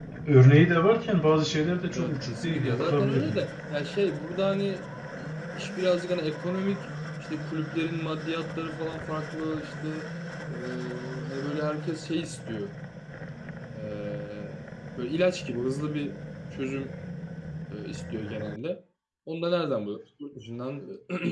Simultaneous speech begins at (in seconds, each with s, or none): 2.0 s